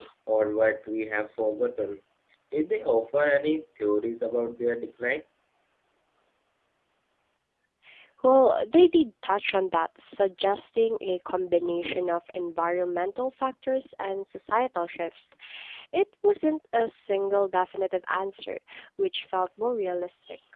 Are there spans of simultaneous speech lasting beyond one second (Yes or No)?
No